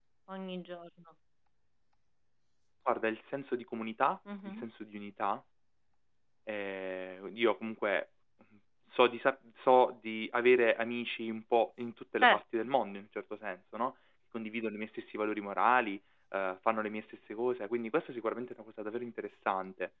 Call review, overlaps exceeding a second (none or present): none